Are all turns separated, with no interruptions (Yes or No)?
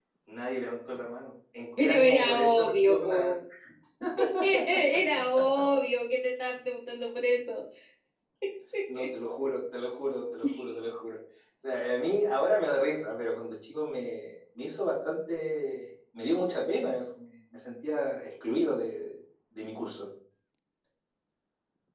No